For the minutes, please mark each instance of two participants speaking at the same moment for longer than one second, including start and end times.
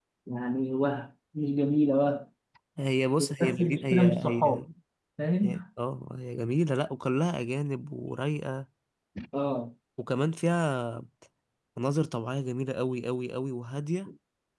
3.2-4.6

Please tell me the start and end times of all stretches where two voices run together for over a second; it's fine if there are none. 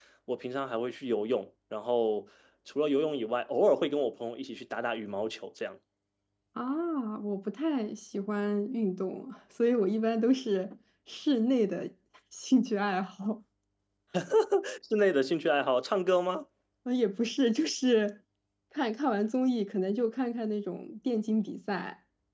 none

